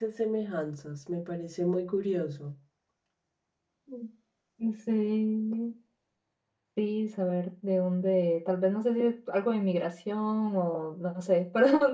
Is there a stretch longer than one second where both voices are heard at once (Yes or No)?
No